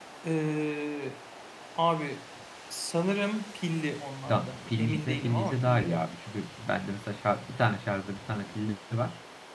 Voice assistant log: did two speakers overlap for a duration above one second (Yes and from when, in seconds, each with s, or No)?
Yes, from 4.3 s